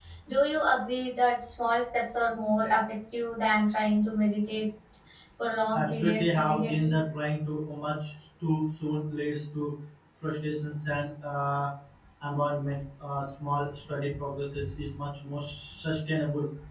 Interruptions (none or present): present